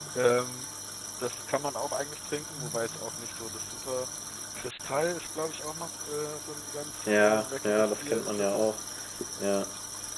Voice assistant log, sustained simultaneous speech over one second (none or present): present